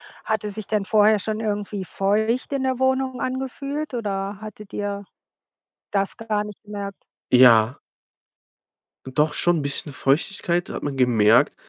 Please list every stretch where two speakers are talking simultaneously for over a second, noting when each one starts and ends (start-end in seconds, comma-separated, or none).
none